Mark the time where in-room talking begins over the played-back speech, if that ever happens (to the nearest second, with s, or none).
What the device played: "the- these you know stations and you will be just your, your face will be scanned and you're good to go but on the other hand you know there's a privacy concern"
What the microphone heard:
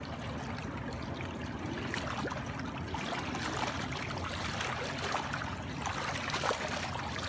none